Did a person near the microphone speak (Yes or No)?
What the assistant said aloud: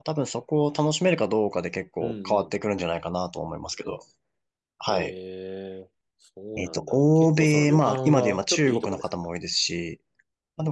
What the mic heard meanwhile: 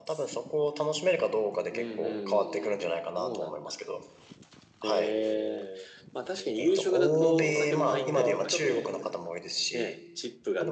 Yes